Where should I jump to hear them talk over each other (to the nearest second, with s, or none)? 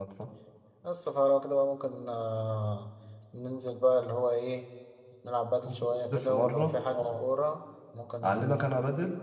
6 s